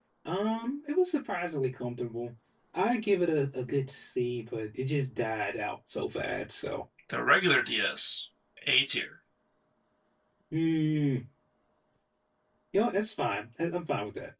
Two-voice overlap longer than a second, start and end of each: none

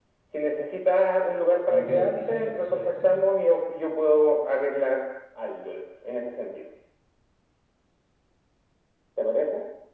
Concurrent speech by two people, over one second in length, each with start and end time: 1.7-3.2

